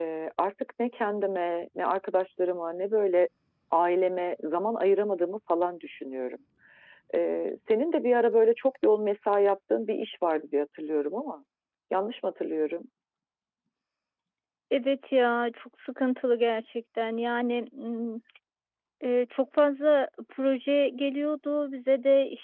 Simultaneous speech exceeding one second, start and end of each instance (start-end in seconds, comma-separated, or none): none